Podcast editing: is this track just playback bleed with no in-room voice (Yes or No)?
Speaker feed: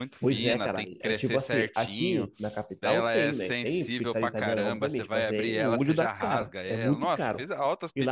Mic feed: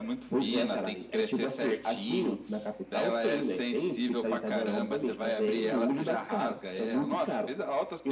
Yes